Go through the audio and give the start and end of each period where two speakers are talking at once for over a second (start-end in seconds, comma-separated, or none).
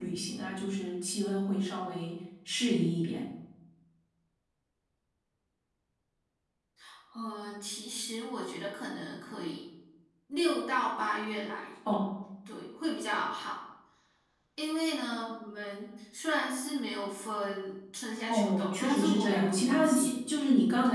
18.3-20.1